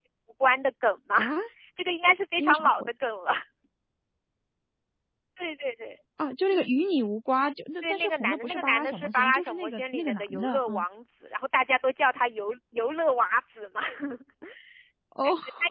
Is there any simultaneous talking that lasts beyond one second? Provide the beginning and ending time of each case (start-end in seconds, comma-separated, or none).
7.8-10.8